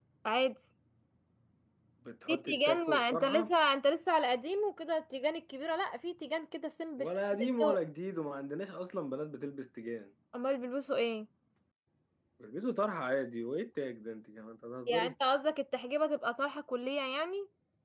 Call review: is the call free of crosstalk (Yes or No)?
No